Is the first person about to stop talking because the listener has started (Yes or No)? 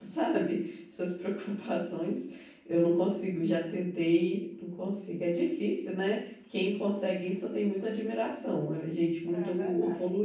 Yes